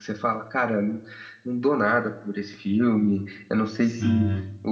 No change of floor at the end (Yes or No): Yes